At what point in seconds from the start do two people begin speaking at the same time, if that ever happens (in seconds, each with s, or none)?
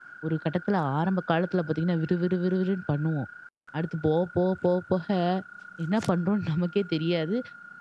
none